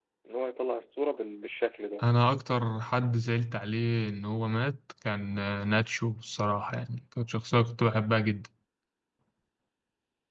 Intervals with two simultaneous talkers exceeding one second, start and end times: none

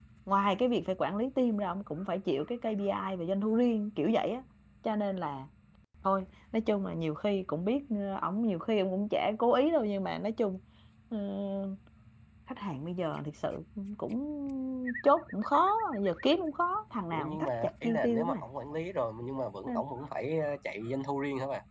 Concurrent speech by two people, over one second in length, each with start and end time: 17.1-18.4

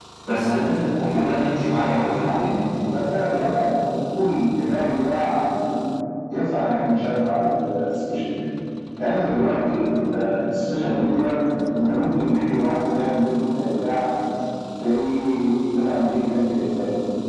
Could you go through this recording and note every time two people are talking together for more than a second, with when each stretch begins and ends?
1.0-2.6

